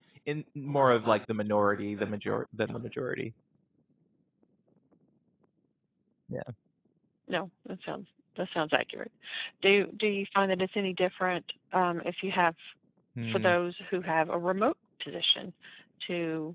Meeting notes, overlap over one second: none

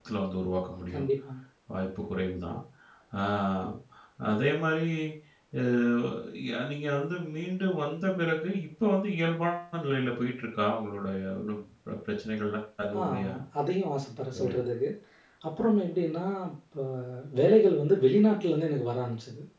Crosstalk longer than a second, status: none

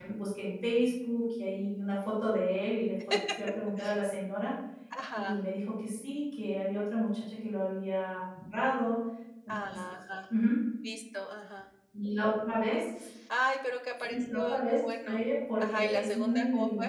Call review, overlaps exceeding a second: present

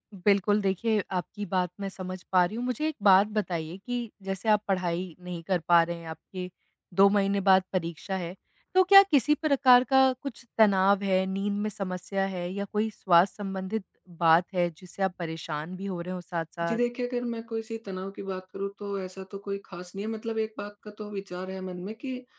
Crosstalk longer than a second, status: none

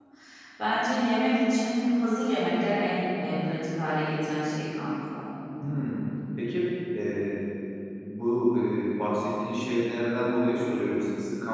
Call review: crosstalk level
none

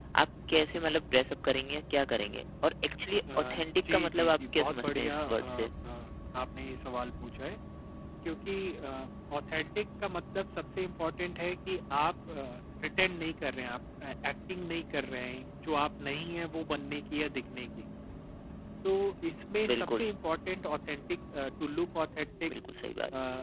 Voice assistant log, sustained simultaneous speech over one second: present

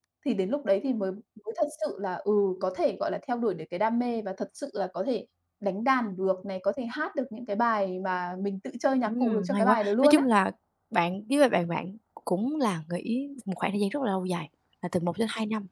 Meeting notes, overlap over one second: present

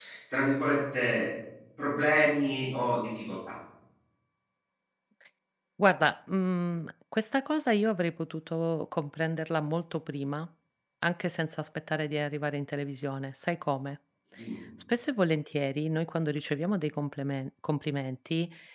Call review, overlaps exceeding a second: none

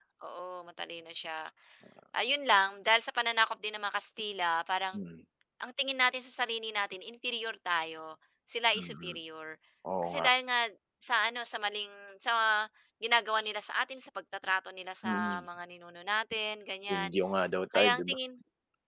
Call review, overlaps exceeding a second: none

